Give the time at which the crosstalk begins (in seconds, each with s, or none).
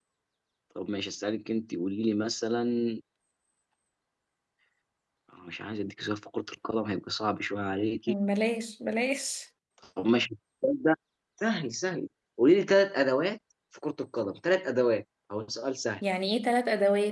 none